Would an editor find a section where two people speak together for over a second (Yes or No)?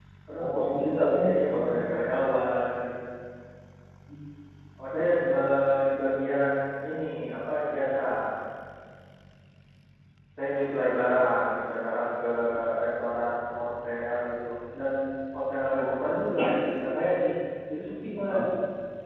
Yes